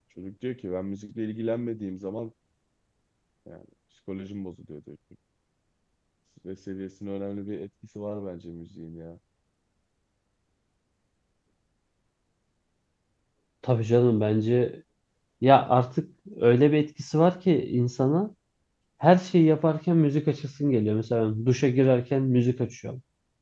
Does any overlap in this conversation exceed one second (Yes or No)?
No